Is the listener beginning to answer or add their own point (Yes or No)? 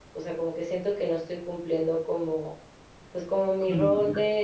No